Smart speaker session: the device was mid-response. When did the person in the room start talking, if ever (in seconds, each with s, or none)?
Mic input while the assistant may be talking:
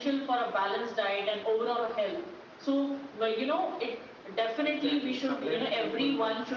4.6 s